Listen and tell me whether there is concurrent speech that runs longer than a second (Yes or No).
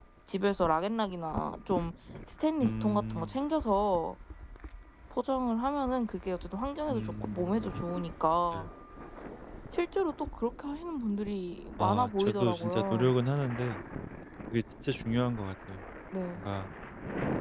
Yes